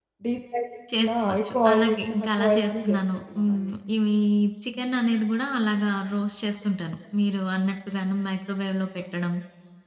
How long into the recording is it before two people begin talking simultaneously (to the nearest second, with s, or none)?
1 s